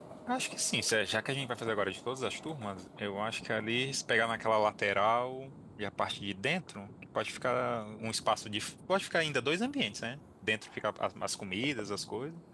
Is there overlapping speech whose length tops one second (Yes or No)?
No